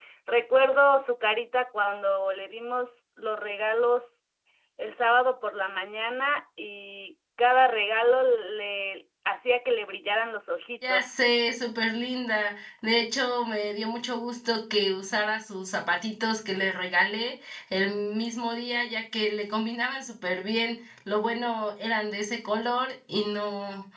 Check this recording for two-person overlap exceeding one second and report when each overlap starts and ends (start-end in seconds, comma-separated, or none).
none